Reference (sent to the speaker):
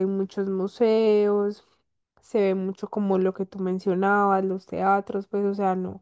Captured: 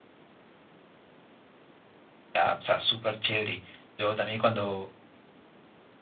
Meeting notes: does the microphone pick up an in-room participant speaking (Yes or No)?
Yes